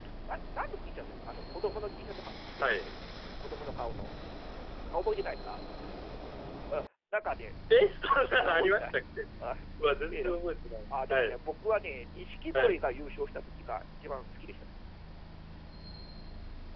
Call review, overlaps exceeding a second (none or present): none